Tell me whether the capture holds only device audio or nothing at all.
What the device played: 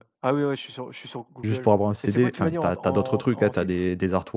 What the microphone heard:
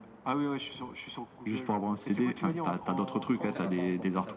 No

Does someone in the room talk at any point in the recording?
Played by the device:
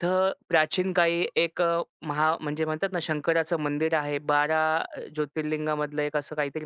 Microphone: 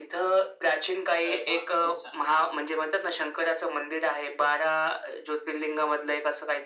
Yes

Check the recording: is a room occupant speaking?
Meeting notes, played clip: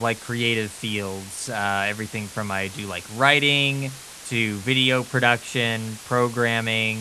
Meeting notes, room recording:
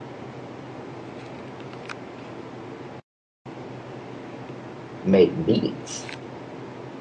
Yes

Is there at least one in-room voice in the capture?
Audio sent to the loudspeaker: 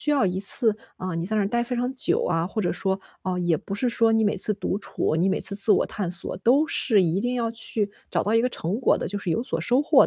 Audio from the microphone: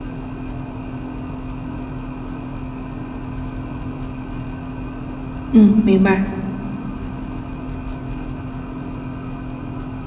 Yes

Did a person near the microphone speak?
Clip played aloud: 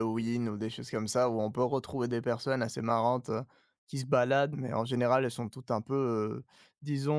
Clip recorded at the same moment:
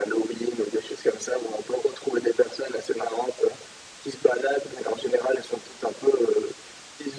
No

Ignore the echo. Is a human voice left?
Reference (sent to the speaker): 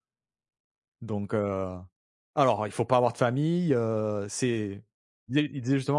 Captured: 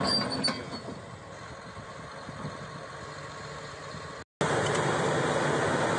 No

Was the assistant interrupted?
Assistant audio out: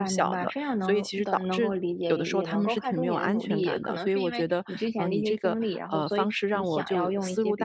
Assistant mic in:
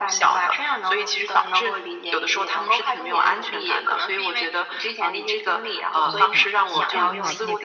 Yes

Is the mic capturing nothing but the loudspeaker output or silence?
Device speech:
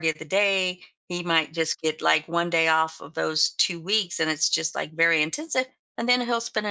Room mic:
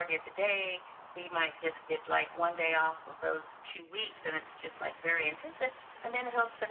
Yes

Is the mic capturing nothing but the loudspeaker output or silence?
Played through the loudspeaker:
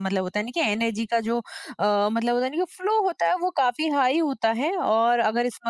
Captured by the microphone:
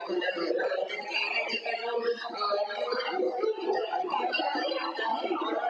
Yes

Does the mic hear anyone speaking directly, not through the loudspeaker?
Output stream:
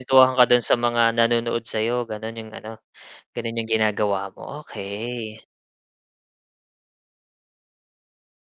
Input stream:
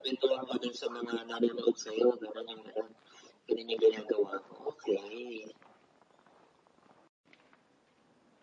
No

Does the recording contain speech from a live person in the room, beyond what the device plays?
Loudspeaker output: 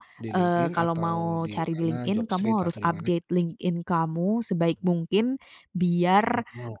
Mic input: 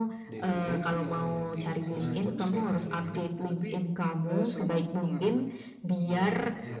Yes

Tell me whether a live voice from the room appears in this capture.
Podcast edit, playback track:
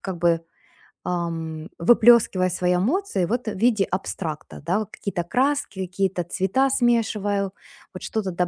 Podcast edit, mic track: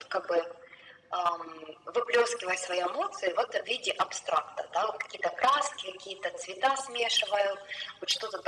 No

